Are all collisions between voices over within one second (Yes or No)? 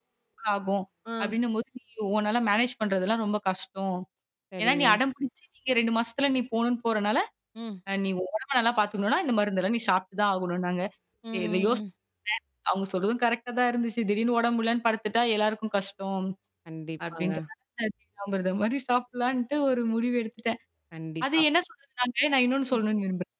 Yes